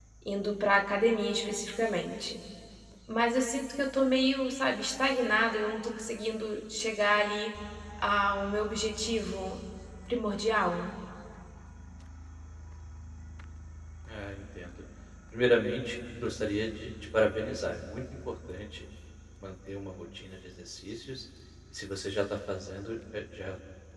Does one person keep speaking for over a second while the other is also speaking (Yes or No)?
No